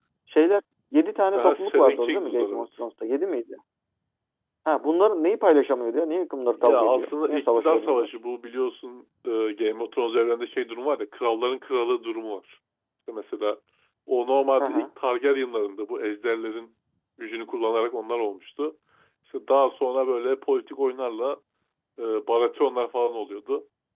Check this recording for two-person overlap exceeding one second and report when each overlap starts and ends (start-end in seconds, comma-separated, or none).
1.4-2.7, 6.6-8.1